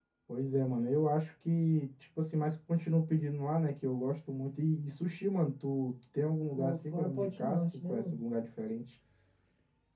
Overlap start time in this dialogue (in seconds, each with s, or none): 6.6 s